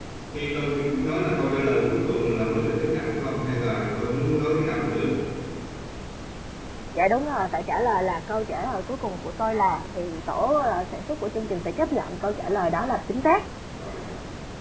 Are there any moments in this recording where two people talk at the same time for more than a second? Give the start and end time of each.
none

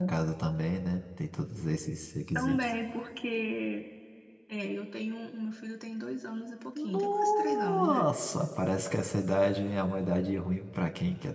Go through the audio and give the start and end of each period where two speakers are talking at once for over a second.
6.8-8.0

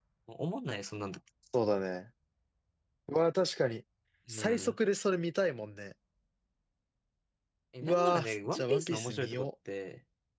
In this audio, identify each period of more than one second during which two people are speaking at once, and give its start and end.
7.8-9.5

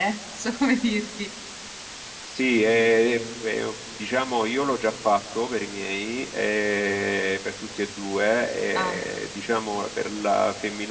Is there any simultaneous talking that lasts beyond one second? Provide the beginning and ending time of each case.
none

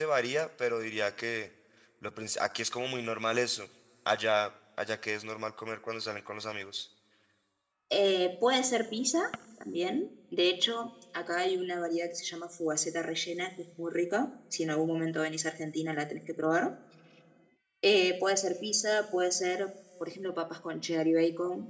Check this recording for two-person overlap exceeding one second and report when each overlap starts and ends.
none

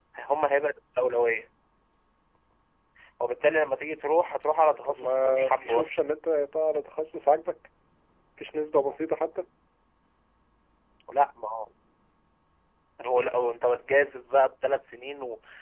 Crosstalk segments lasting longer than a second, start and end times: 4.6-5.9

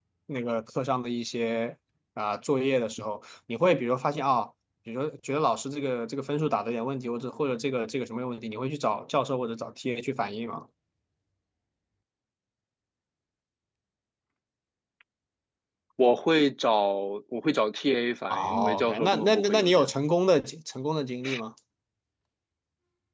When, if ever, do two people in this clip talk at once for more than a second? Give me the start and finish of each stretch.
18.3-19.9

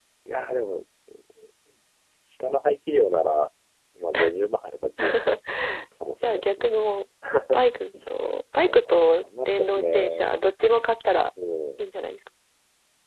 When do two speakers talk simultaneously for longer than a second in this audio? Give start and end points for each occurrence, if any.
8.8-10.3

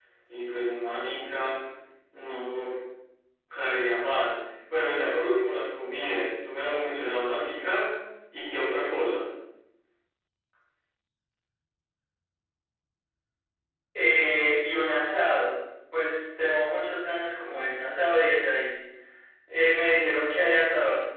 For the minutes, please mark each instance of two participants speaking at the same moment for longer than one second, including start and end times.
none

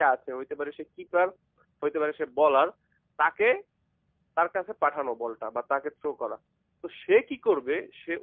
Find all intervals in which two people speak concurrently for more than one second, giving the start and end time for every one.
none

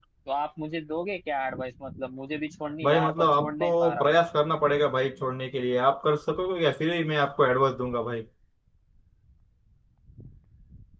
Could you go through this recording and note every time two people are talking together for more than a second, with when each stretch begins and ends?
2.8-4.2

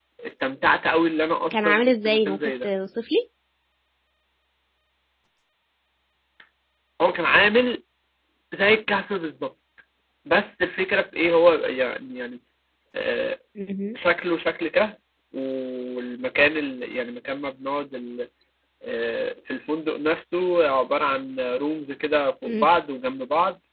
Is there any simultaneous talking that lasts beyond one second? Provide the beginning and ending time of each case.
1.5-2.7

